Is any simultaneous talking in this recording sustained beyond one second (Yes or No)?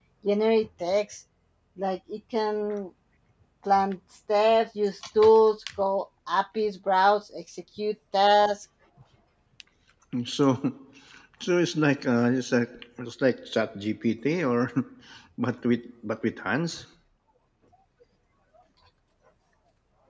No